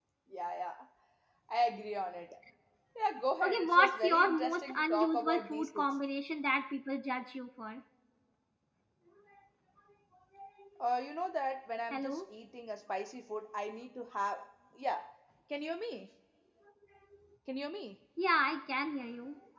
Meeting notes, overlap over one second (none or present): present